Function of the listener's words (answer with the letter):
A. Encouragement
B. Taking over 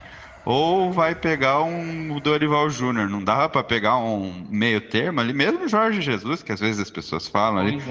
A